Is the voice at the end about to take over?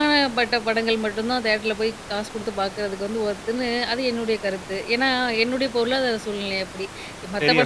No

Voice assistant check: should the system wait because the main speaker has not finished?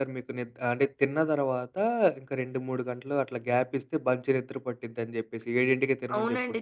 No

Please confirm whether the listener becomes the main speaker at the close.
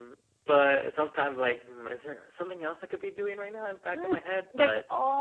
Yes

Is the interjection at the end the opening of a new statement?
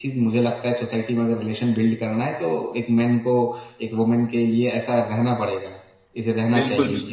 Yes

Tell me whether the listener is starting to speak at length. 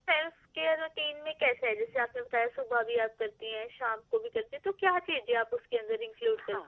Yes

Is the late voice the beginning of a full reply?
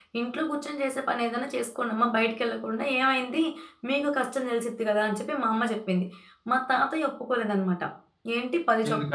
No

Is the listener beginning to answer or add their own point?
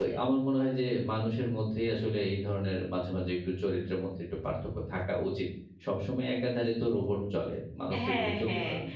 Yes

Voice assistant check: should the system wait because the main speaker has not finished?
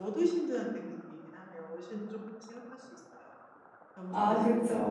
Yes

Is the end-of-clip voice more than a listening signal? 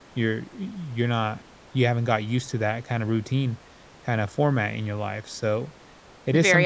Yes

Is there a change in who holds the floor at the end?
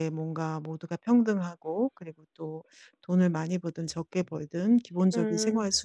No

